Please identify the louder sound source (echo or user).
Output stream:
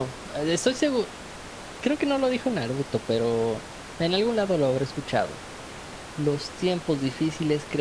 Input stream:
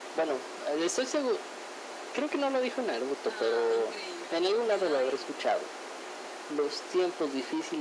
echo